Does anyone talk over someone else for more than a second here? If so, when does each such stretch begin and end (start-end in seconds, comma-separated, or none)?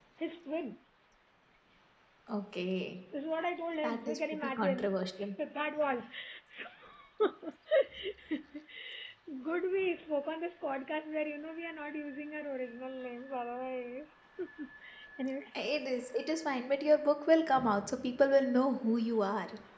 3.8-5.3